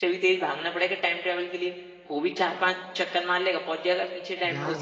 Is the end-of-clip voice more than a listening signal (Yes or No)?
Yes